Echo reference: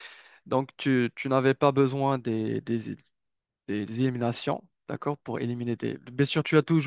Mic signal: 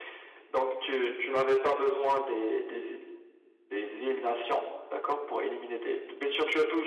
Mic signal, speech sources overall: echo only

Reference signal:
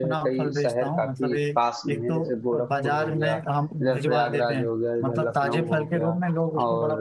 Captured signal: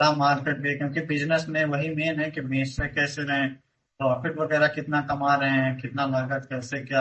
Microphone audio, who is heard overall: user only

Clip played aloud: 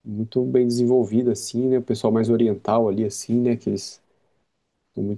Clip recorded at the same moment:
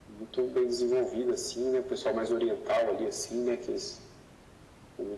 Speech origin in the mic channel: echo only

